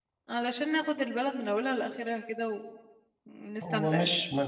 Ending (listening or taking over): taking over